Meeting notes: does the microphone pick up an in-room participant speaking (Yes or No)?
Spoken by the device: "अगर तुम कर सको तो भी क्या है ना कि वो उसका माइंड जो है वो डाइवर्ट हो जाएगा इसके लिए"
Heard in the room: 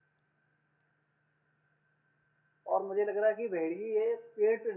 Yes